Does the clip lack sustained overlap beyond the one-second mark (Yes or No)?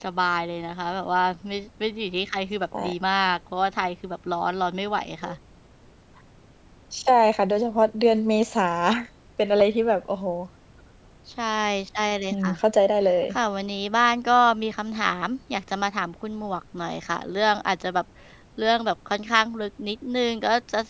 Yes